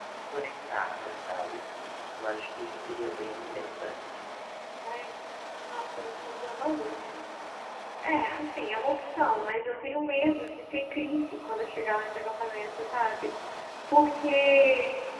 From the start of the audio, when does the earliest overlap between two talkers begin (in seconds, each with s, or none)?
none